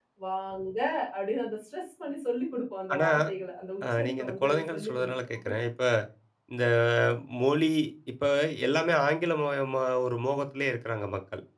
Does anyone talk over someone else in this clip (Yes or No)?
Yes